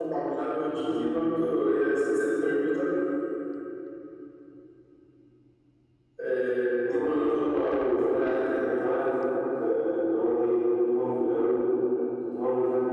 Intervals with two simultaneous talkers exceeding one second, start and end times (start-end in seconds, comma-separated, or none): 6.9-8.8